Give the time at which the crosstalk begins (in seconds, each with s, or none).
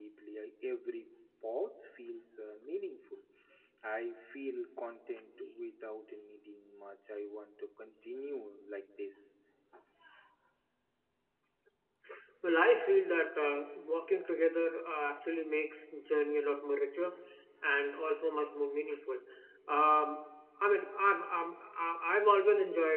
none